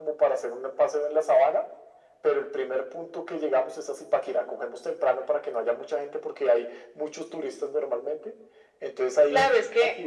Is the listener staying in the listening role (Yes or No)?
No